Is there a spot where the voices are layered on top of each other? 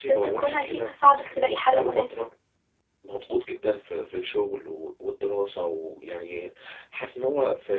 Yes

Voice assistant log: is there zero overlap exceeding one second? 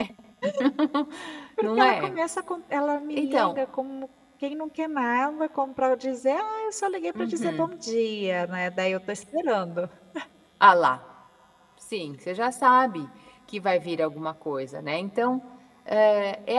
Yes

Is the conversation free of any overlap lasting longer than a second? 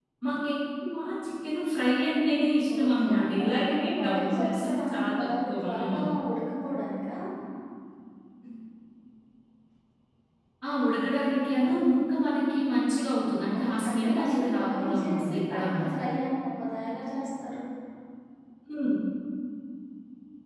No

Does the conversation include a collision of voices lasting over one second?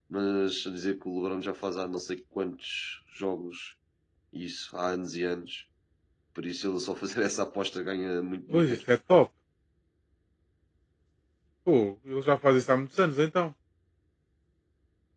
No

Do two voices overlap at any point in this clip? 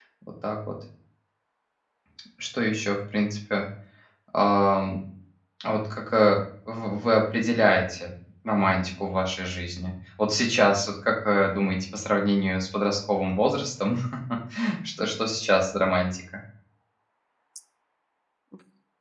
No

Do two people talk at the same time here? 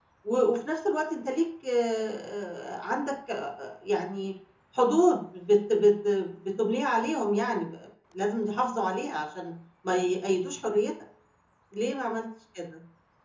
No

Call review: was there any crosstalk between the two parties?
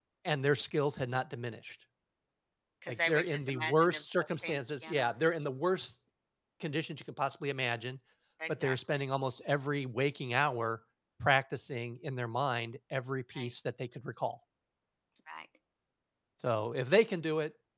Yes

